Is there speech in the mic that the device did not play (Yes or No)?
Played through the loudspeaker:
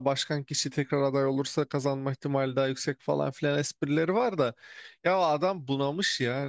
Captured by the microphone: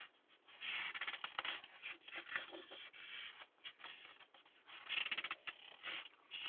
No